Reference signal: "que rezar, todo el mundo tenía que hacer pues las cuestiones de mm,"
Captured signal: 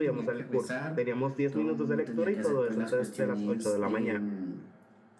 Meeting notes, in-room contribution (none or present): present